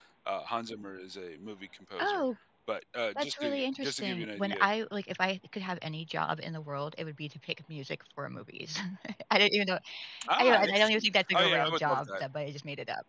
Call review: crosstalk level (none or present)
present